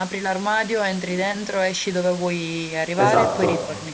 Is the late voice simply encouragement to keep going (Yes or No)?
No